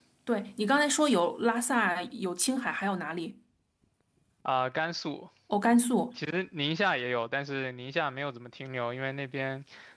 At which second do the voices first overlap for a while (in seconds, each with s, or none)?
none